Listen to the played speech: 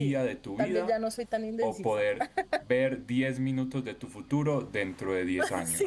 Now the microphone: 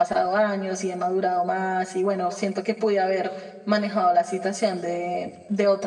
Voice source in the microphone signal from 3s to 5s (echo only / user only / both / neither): user only